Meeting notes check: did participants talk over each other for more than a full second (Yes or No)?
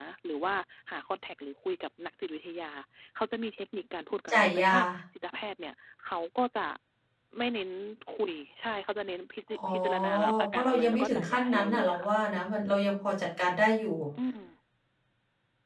Yes